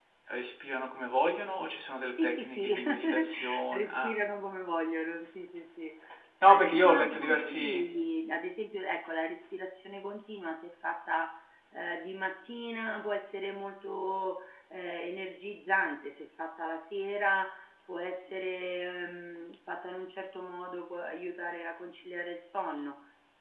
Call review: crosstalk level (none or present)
present